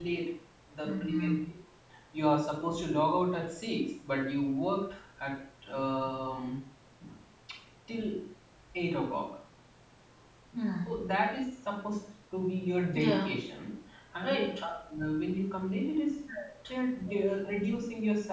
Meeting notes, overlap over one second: none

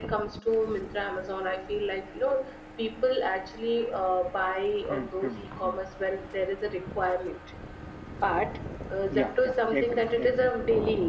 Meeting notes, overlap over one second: present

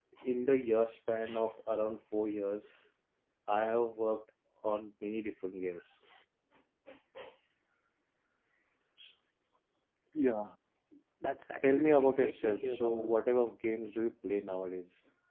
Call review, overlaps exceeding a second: present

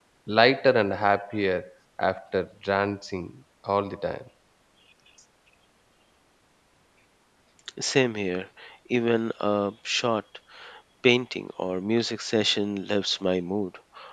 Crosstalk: none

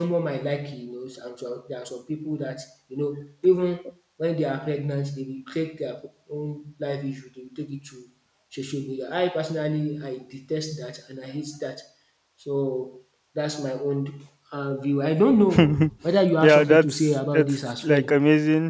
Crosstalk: present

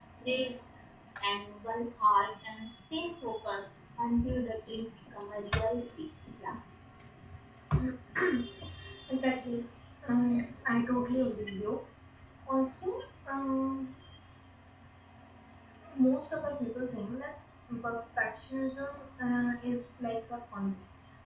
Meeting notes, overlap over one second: none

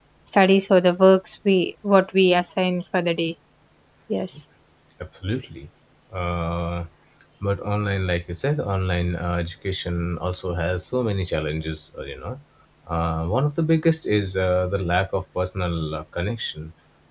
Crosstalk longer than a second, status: none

